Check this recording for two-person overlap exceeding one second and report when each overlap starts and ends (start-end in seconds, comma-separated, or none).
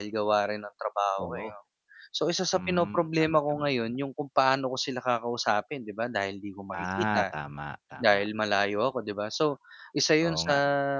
2.5-3.9